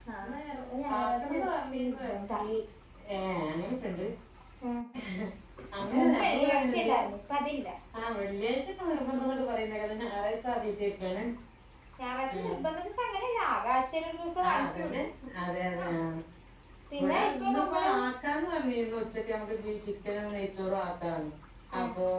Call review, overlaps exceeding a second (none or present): present